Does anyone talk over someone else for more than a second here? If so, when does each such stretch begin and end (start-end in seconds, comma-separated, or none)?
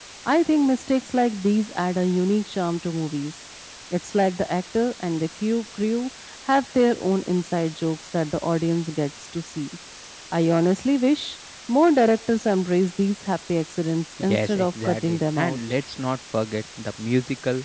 14.3-15.6